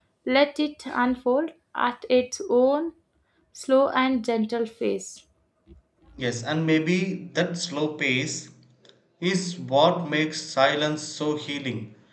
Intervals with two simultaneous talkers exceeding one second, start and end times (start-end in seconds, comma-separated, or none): none